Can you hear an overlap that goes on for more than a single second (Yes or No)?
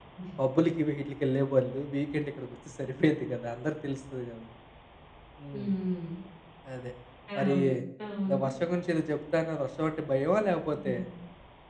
No